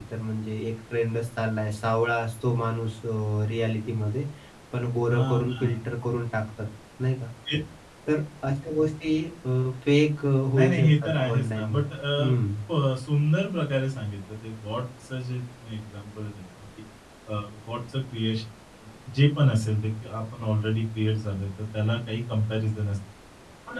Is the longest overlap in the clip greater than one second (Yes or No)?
Yes